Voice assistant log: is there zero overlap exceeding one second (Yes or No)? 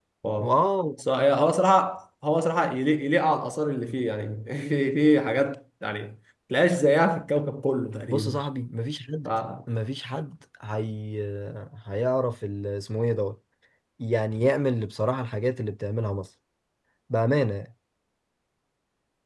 Yes